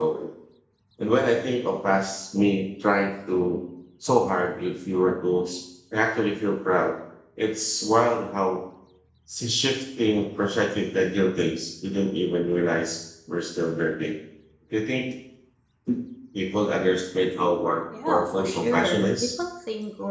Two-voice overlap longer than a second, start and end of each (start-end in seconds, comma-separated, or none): 18.1-19.4